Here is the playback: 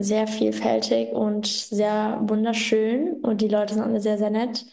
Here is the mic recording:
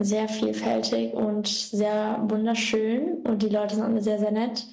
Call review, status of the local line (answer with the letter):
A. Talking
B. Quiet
B